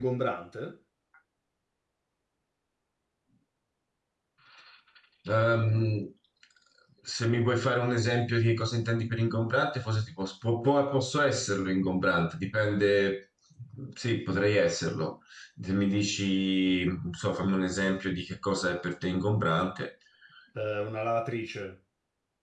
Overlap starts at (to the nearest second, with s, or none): none